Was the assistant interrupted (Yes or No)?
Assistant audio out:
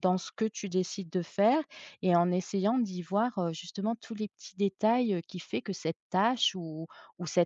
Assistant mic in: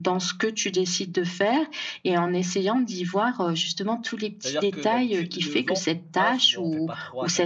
Yes